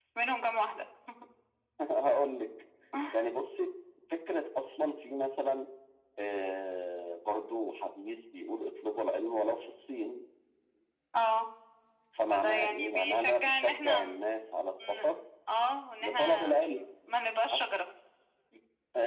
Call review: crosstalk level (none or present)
present